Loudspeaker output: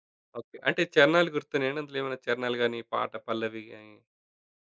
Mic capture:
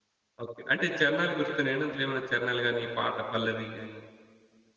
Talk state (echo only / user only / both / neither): echo only